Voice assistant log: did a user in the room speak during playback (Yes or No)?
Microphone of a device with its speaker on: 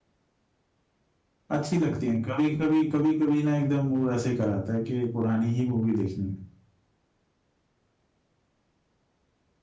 Yes